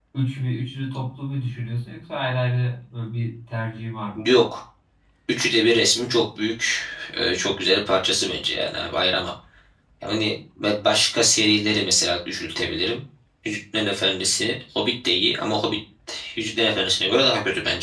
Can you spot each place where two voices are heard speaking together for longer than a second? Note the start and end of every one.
none

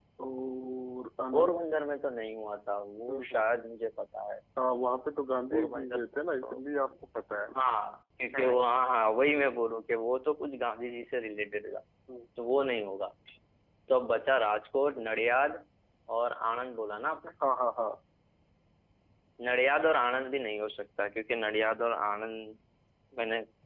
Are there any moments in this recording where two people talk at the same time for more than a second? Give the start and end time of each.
none

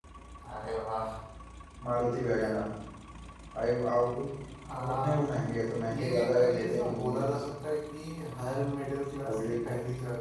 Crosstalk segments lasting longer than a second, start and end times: 5.9-7.4

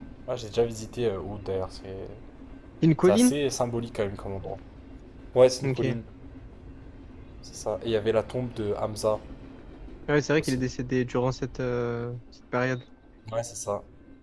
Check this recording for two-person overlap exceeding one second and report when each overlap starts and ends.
none

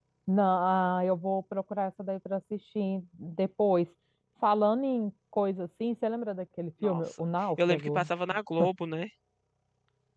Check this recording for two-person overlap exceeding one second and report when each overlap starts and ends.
none

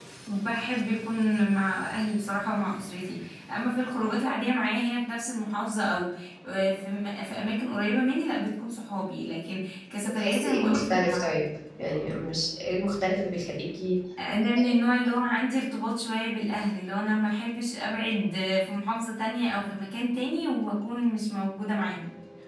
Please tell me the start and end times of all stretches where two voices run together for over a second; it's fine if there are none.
10.1-11.3

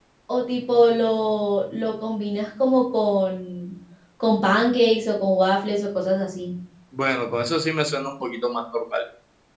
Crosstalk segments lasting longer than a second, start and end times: none

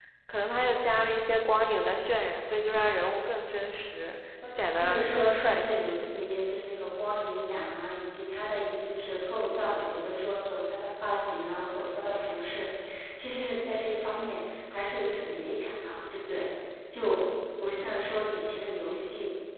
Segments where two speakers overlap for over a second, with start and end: 4.8-6.0

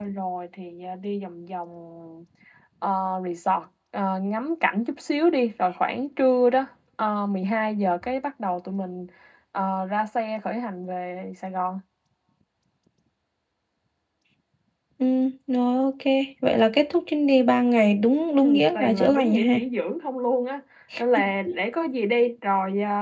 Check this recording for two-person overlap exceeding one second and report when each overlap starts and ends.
18.4-19.6

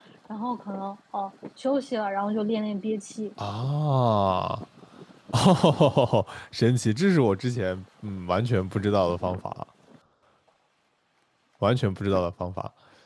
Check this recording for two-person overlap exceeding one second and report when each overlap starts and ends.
none

